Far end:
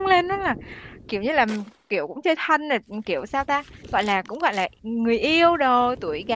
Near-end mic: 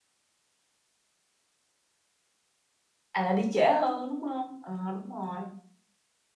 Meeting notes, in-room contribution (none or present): present